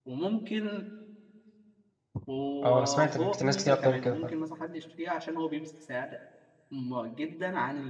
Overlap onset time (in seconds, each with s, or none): 2.6 s